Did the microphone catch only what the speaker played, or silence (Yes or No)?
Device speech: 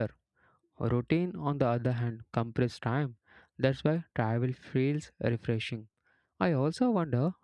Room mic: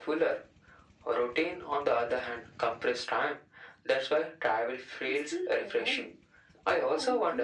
No